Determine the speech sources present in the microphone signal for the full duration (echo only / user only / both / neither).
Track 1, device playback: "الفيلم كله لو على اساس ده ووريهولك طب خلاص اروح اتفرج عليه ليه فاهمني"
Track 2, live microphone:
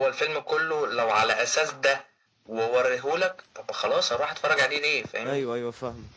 both